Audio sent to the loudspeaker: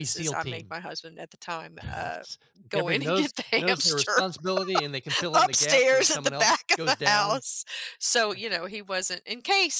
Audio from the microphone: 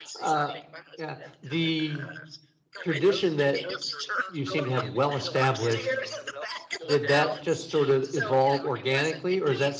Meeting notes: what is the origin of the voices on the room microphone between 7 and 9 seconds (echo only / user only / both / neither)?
both